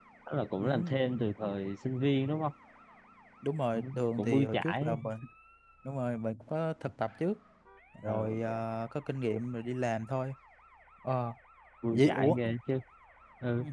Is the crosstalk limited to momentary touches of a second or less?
No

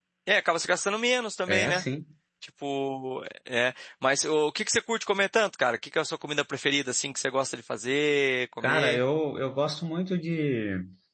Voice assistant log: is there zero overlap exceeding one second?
Yes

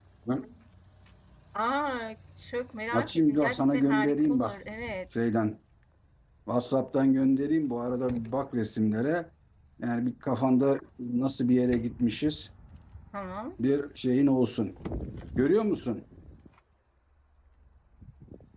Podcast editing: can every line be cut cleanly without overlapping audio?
No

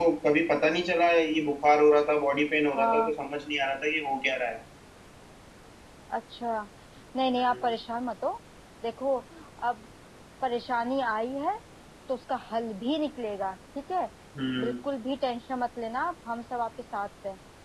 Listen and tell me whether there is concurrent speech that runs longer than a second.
No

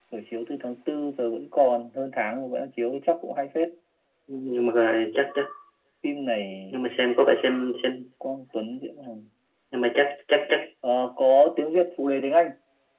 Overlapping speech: No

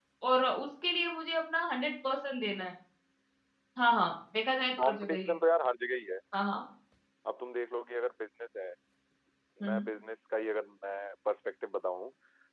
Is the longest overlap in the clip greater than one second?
No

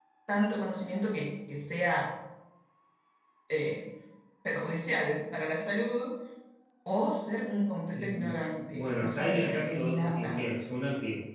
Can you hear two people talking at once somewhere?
Yes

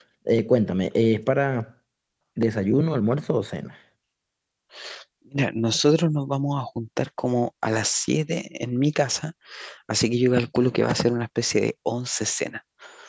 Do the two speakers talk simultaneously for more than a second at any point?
No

